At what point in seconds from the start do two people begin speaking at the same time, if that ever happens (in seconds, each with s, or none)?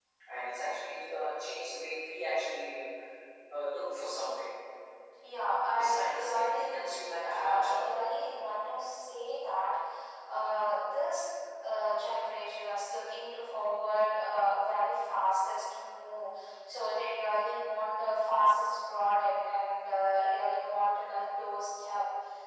5.7 s